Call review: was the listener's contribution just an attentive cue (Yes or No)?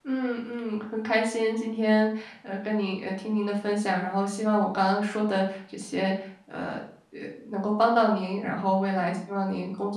Yes